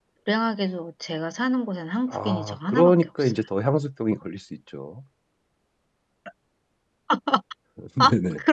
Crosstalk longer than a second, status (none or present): present